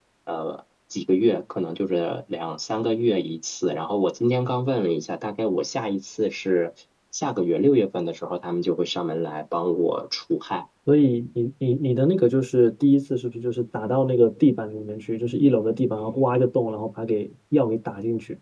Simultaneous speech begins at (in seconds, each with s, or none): none